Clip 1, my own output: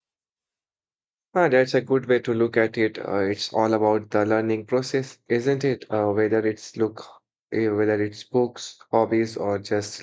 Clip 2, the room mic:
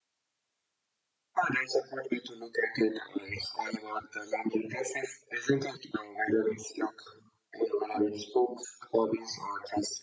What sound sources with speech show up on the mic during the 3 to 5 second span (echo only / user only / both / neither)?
echo only